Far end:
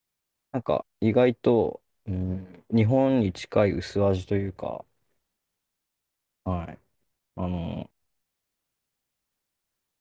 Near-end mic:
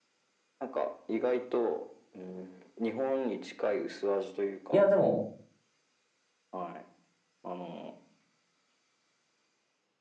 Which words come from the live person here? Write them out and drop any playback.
いや、でも、

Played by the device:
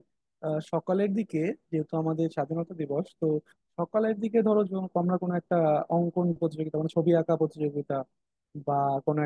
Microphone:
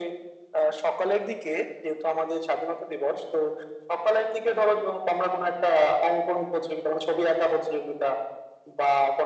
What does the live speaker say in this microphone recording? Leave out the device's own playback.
none

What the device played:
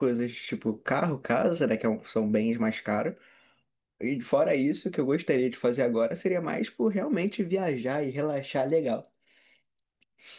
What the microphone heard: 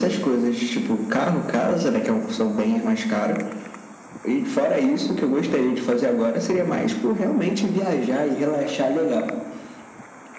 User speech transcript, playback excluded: none

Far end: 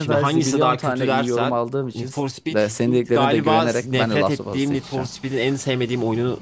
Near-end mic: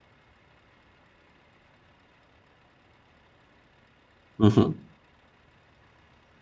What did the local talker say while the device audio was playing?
Hı hı.

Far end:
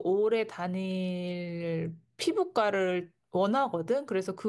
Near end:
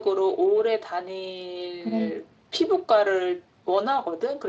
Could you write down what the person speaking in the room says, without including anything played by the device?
그런

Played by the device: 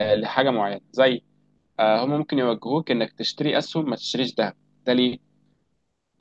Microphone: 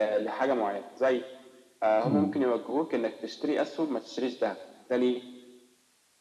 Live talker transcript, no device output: مم.

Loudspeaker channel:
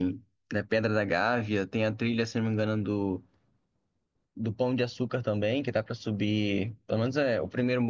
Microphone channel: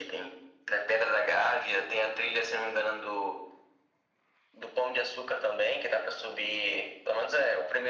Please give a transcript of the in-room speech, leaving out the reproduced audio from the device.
none

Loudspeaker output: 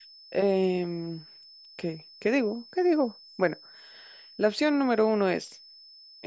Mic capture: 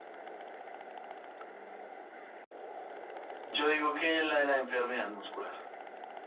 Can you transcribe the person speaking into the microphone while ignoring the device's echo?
yo digo que la de la enfermedad muscular.

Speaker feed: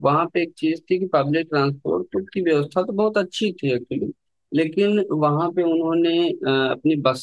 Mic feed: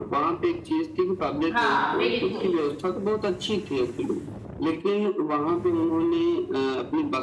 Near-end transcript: हाँ बिल्कुल

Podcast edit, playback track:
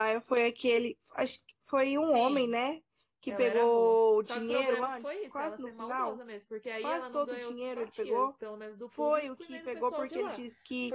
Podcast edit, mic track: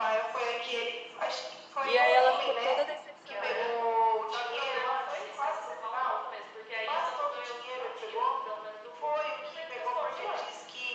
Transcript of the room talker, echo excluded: E aí ela ficou toda decepcionada.

